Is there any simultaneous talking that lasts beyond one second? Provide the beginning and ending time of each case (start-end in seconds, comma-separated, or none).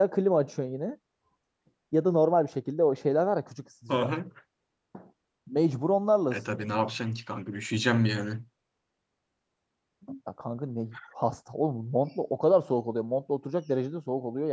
none